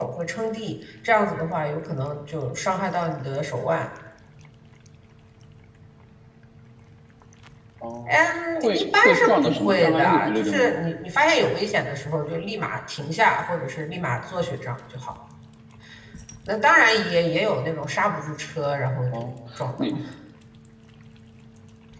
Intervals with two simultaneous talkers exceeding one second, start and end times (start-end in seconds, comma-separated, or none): 8.6-10.7